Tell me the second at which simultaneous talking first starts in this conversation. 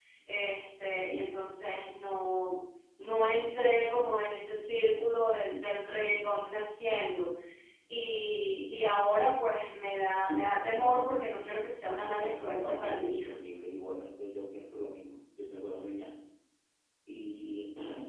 12 s

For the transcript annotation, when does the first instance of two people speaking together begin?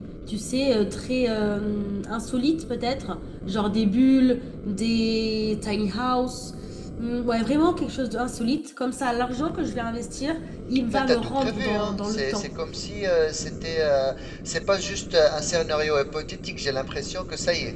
11 s

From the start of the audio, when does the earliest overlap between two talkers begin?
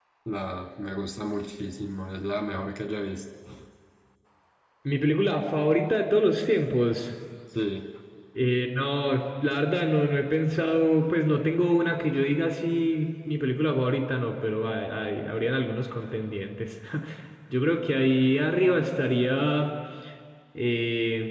none

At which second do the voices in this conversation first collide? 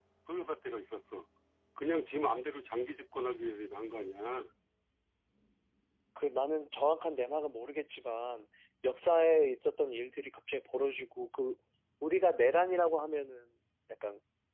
none

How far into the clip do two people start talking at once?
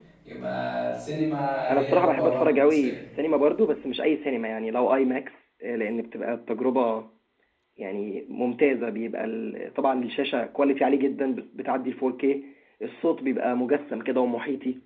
2 s

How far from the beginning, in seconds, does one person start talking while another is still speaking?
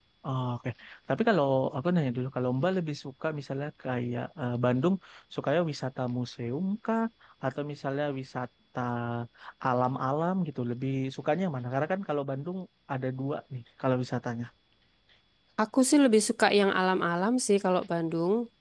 none

